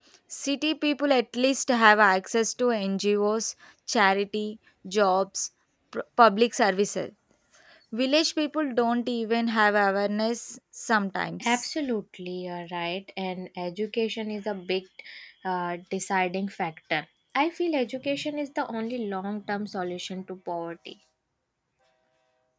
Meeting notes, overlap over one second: none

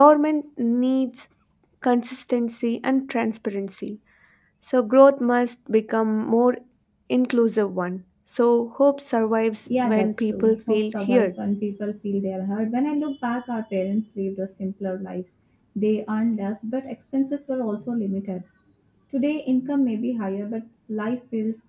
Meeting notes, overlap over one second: present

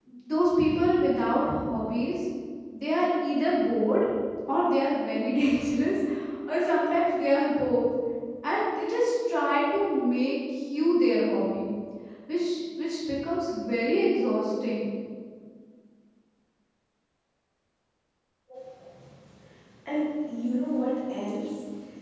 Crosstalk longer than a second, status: none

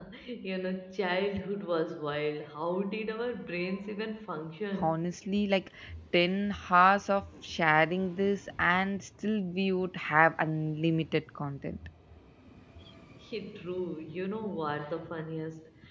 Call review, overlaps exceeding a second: none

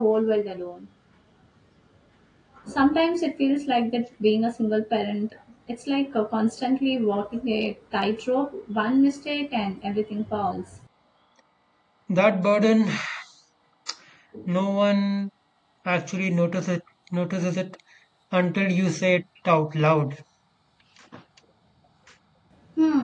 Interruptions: none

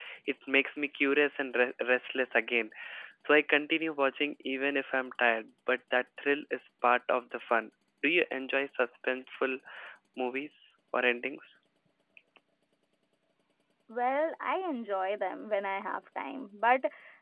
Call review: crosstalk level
none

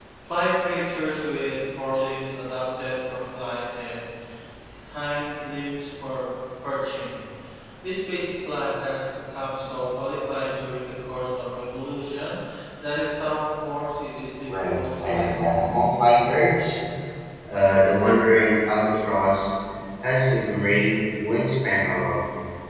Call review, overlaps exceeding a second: present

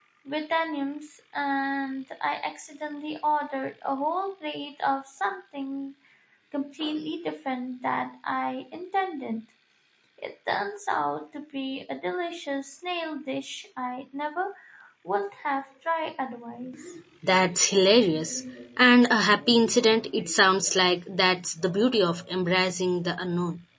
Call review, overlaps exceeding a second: none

